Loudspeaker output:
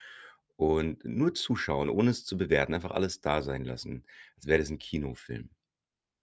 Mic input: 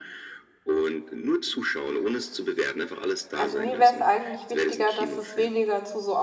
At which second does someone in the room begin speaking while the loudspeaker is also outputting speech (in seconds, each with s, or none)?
3.3 s